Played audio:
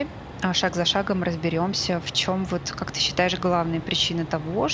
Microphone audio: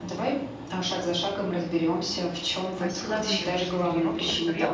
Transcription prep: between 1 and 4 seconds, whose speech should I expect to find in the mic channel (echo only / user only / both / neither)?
both